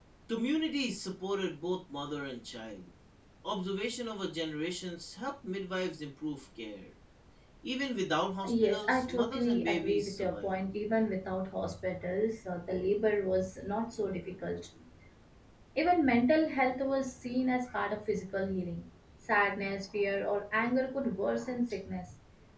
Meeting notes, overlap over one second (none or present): present